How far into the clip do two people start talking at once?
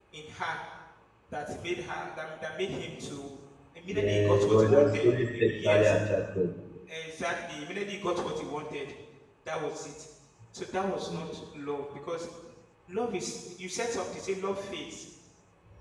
3.9 s

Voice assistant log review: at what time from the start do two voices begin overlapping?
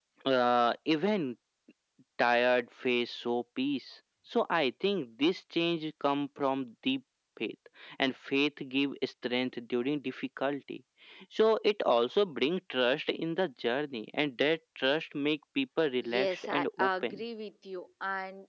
16.0 s

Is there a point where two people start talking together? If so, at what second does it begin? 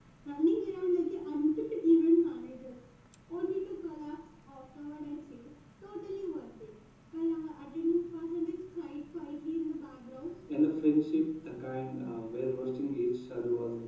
none

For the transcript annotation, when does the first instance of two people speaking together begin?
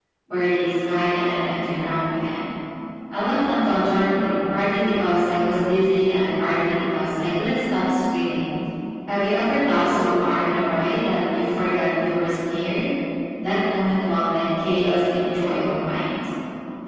none

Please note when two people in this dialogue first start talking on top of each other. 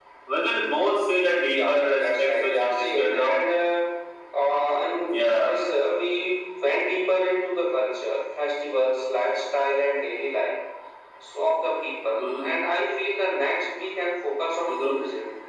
1.5 s

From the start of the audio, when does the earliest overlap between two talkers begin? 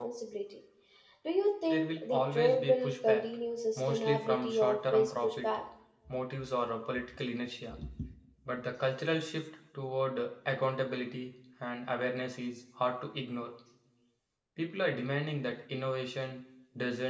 1.7 s

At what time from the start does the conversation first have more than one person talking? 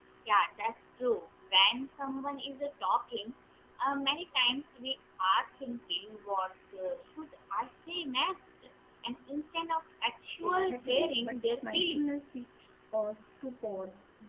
10.4 s

